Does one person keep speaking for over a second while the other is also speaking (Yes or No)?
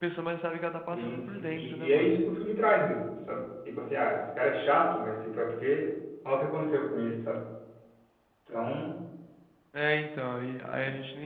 Yes